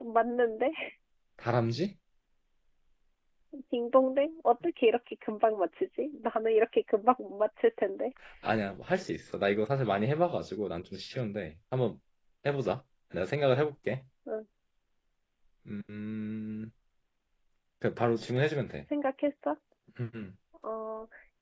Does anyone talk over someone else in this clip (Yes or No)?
No